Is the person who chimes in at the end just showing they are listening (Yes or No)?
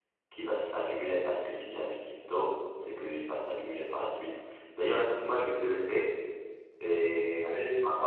No